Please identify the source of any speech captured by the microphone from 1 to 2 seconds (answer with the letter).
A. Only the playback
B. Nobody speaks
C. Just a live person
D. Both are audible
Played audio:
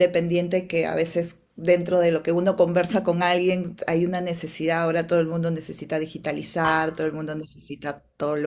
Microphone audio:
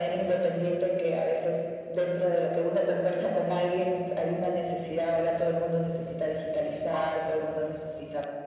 A